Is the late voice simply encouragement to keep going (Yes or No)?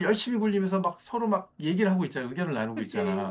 No